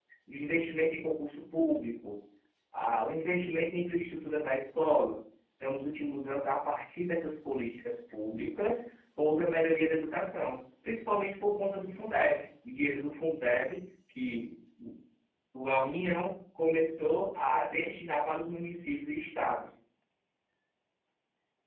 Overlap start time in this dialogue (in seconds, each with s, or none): none